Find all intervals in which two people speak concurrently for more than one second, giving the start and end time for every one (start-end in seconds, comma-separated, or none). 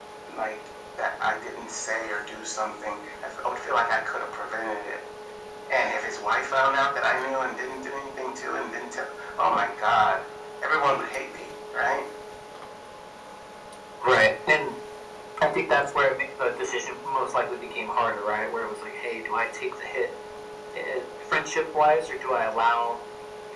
none